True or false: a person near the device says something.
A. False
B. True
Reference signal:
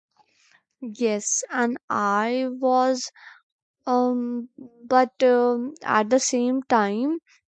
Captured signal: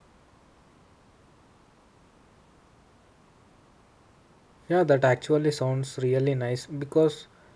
B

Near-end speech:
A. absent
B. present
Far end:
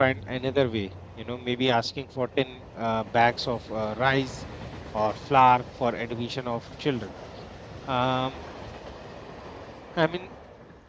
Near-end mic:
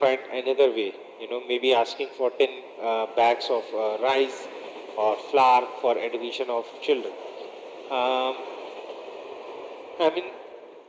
A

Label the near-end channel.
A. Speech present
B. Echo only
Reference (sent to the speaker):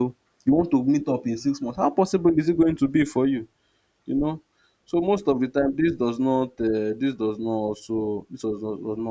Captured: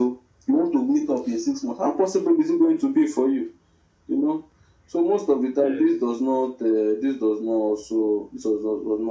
A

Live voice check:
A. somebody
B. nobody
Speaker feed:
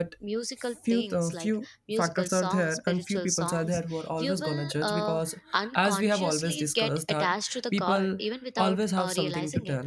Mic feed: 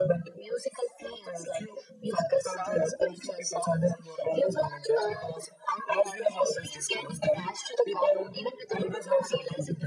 B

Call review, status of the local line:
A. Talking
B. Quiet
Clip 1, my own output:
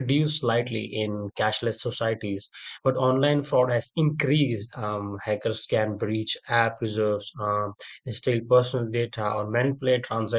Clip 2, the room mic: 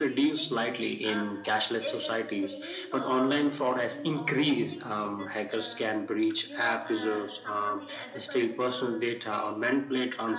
A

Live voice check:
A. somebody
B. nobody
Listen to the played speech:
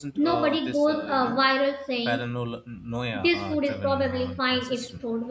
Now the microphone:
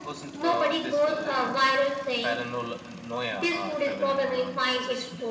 B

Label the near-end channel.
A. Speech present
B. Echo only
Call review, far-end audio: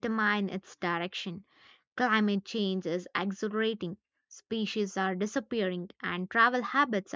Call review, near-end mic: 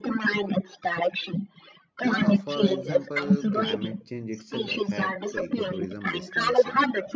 A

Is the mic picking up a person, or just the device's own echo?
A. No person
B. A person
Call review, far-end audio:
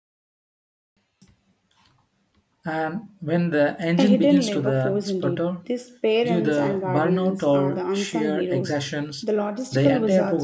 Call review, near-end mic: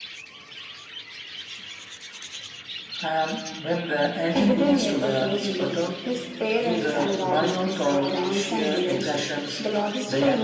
A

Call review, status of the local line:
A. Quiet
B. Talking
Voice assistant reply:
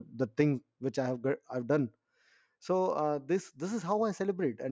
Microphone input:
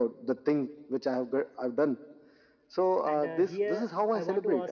B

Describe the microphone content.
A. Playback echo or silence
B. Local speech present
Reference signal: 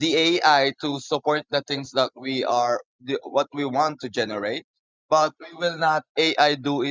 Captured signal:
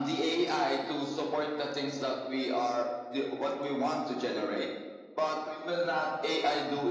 A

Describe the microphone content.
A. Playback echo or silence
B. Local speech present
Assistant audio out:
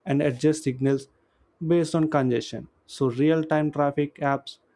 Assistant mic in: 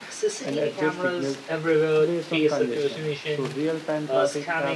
B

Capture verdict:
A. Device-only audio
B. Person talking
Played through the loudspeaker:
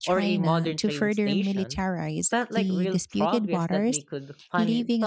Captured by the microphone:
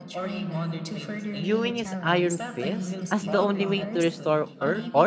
B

